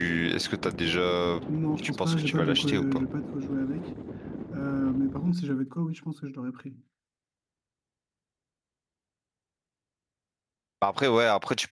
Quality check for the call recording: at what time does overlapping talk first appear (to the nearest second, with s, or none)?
2 s